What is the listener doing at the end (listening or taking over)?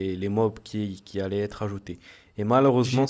listening